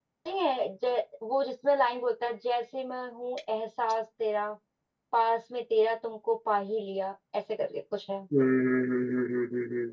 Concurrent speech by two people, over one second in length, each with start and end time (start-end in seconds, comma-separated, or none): none